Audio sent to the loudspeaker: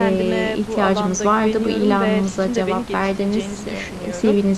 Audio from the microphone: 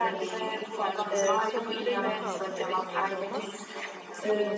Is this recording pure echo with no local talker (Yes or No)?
No